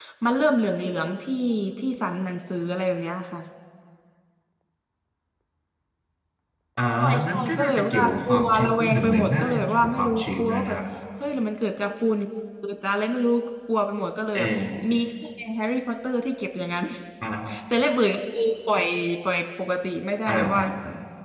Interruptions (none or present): present